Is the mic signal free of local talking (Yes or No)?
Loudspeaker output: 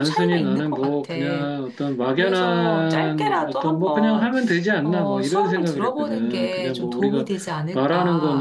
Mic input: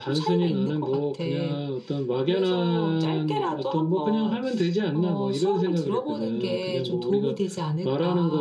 Yes